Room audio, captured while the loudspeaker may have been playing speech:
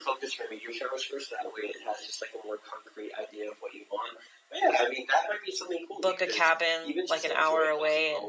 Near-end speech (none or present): present